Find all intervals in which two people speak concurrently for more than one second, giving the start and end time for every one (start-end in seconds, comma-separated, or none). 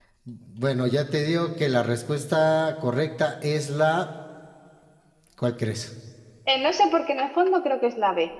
none